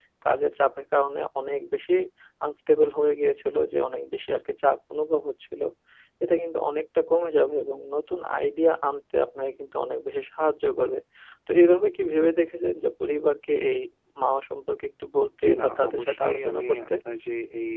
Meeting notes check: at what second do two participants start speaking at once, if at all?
15.4 s

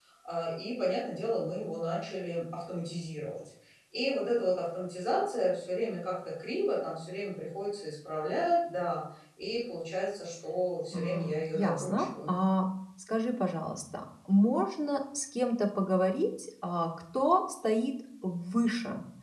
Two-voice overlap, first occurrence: 10.9 s

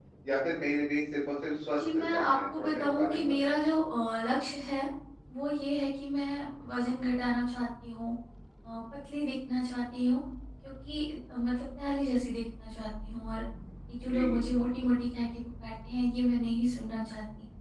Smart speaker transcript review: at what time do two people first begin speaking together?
1.9 s

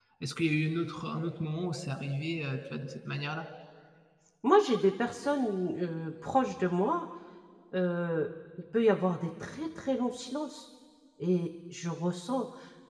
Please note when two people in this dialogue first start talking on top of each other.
none

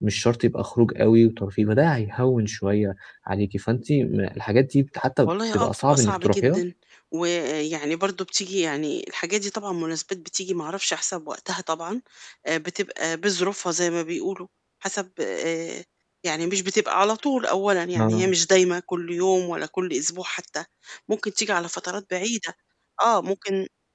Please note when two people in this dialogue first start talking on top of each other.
5.2 s

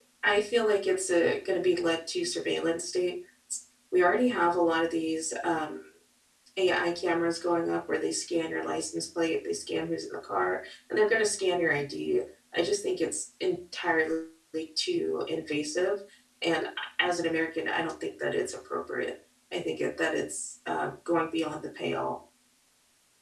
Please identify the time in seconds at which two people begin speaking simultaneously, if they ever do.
none

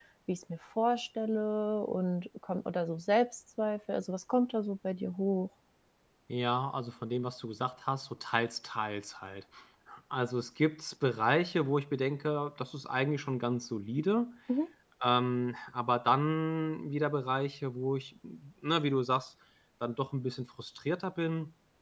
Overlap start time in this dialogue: none

